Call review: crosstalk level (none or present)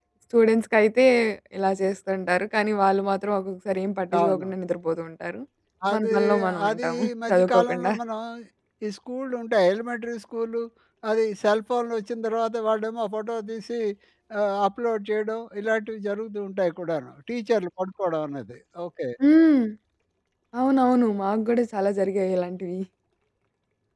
present